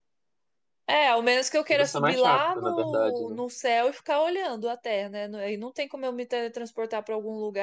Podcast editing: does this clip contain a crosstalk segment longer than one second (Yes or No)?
Yes